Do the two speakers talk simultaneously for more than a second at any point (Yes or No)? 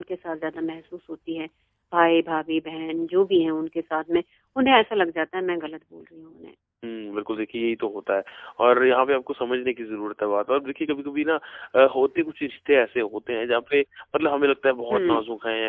No